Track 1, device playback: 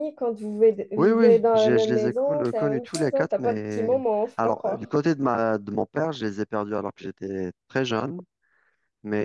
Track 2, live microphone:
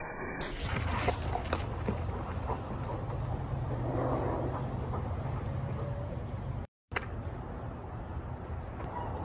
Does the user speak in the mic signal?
No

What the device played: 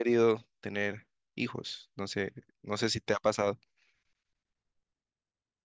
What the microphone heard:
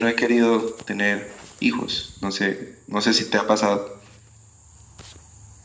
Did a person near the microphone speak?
No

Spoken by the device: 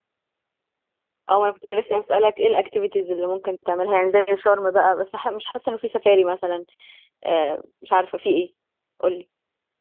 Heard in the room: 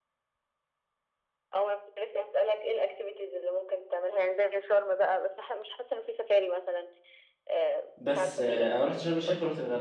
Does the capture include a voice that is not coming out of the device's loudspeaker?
Yes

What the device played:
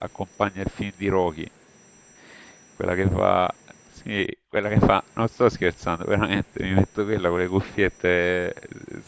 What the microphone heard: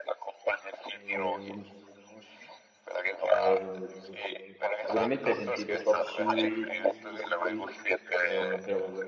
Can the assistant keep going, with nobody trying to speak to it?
No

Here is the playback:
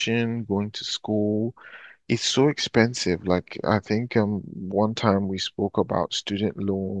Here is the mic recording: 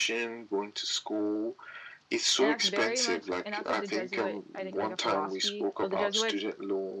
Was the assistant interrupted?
Yes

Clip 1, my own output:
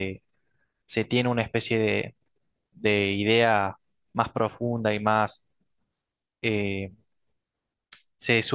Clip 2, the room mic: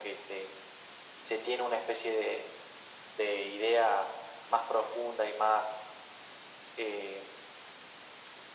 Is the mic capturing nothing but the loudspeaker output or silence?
Yes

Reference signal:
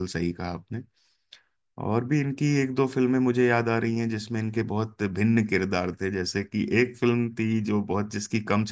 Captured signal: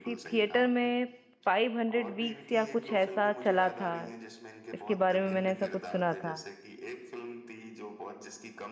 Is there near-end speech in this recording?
Yes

